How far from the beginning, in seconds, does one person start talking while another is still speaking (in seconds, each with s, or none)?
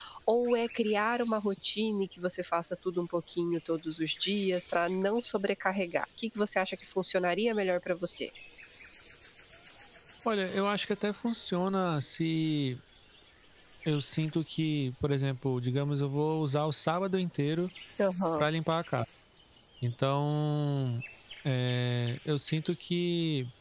none